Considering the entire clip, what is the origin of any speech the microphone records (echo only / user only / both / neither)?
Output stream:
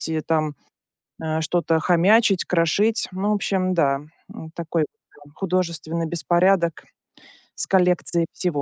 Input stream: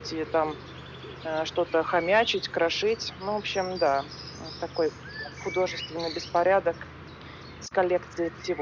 echo only